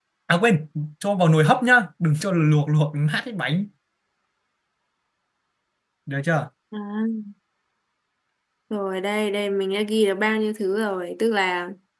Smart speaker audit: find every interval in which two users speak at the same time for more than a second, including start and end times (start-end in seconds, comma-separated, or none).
none